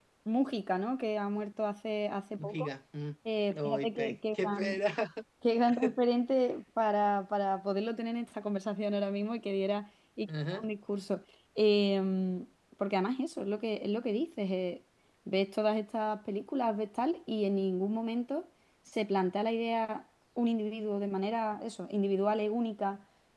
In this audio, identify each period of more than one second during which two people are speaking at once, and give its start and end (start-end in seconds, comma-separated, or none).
3.5-4.8